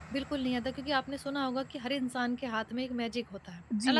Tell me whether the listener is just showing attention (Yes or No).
No